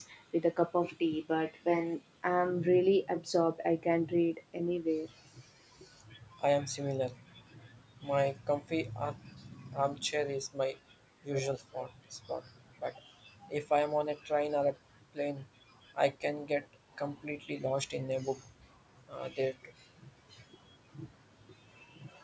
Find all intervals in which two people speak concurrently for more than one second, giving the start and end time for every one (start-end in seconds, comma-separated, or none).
none